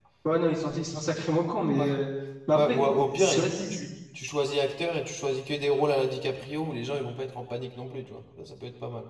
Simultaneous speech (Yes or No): Yes